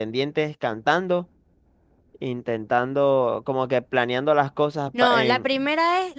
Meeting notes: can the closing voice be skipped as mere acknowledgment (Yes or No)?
No